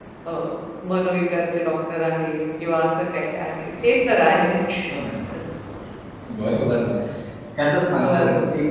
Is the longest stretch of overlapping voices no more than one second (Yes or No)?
Yes